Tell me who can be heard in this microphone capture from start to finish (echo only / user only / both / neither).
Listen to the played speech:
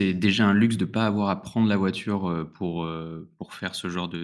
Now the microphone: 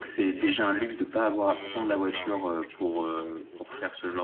both